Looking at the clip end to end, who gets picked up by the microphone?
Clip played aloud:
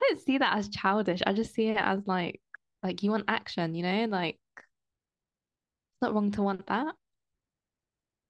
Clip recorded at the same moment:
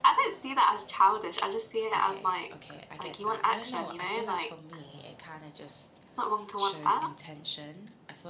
both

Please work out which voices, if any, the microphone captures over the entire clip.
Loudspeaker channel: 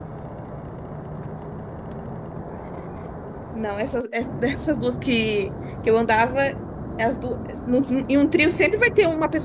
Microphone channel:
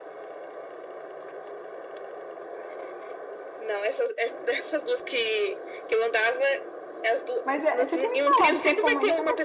both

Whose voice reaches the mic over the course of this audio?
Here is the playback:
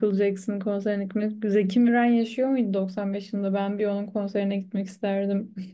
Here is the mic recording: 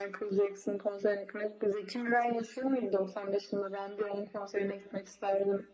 echo only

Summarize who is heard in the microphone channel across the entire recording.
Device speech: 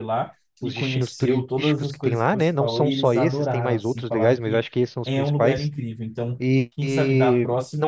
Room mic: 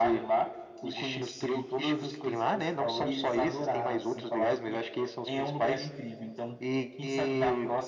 echo only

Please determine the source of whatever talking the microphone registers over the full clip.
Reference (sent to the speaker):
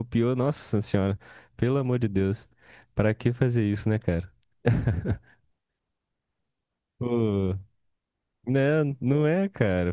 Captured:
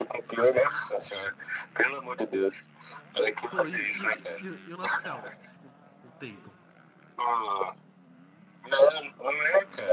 both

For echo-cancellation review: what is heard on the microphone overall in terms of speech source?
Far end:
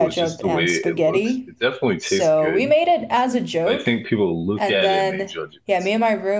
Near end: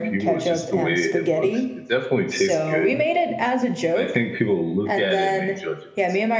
echo only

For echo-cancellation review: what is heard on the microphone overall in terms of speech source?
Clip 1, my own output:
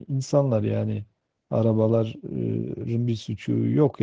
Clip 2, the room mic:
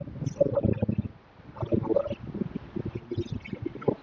echo only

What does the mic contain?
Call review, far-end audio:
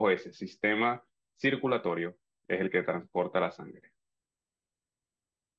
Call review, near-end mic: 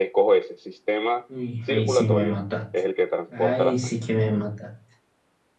both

